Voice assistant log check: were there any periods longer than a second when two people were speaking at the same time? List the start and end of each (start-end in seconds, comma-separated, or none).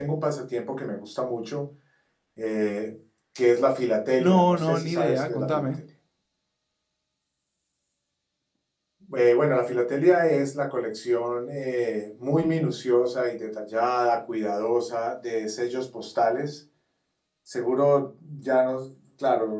4.2-5.7